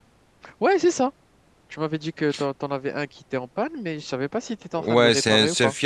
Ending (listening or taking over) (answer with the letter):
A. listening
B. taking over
B